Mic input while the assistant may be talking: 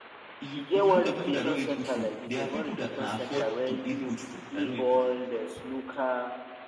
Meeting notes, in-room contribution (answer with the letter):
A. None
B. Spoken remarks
B